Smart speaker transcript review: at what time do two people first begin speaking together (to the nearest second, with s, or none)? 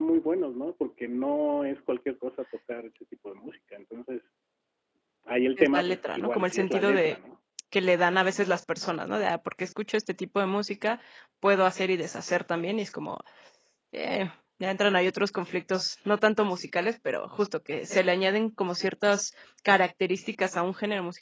6 s